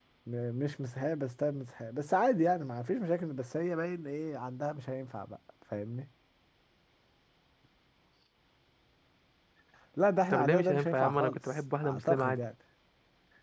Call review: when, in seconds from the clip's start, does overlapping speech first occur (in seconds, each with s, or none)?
10.3 s